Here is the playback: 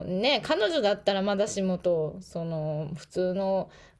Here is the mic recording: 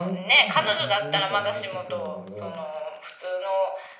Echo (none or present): present